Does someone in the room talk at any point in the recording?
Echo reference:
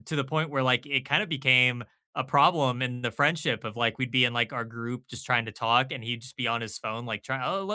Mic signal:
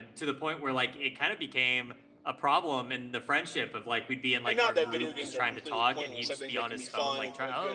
Yes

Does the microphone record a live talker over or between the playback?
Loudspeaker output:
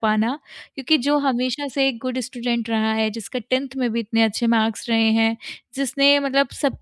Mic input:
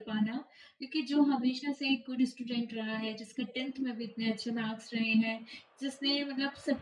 No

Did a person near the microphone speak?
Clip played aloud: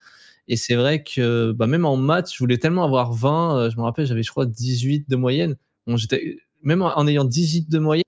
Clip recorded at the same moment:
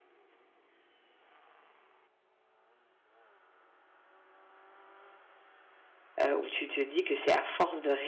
Yes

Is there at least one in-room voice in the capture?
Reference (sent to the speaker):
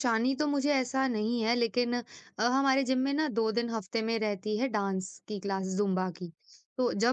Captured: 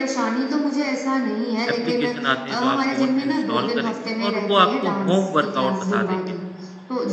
Yes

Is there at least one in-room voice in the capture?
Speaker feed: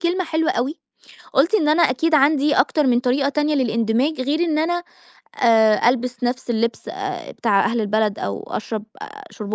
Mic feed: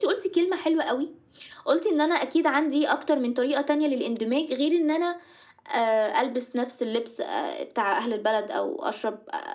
No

